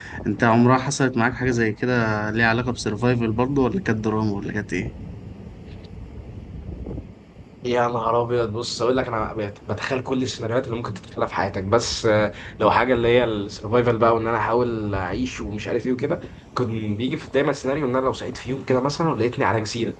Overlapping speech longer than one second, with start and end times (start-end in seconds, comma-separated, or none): none